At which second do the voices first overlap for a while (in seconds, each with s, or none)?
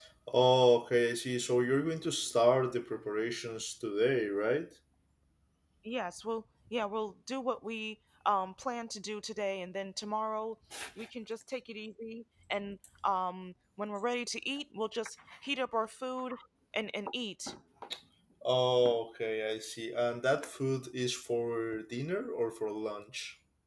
none